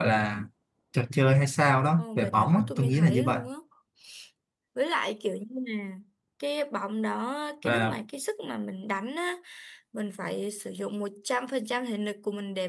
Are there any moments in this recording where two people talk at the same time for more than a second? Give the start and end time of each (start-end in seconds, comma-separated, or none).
2.0-3.4